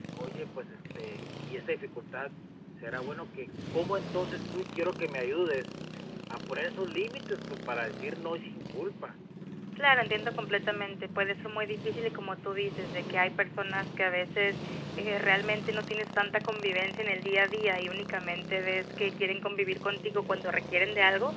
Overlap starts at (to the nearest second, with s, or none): none